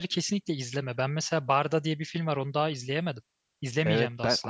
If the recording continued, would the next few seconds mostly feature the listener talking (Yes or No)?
Yes